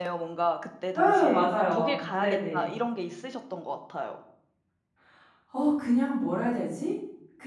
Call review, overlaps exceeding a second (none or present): present